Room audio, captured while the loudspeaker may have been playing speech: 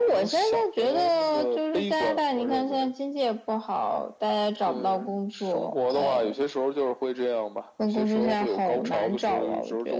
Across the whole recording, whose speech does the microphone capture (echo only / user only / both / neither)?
echo only